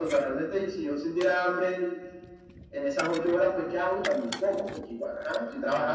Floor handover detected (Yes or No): No